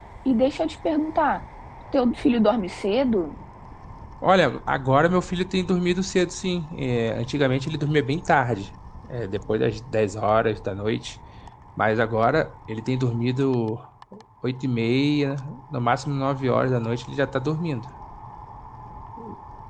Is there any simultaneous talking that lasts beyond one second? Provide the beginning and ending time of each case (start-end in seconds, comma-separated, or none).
none